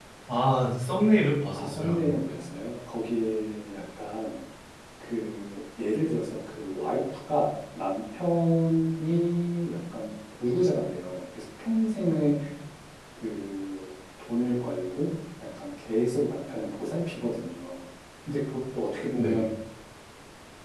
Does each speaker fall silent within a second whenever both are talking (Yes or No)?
Yes